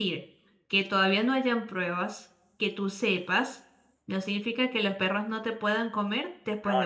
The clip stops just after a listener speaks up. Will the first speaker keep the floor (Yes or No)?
No